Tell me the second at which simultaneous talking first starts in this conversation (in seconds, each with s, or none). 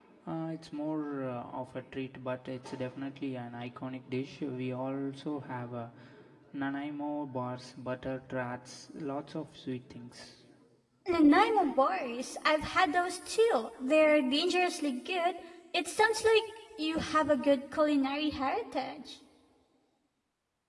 none